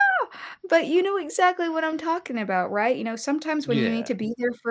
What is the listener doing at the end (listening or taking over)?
listening